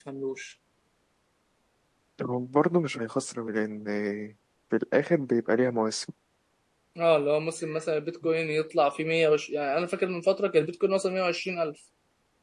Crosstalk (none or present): none